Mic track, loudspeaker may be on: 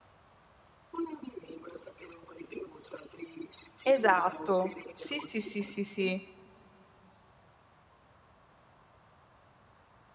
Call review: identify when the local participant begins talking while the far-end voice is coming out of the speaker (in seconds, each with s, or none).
3.9 s